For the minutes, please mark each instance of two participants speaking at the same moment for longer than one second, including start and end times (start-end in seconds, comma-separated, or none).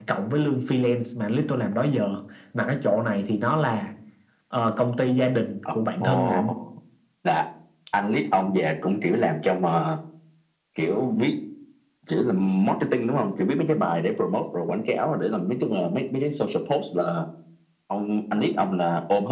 none